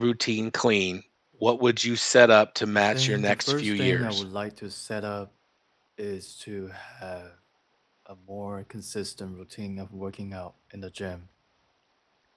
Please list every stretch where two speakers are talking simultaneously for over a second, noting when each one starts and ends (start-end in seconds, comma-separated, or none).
2.9-4.2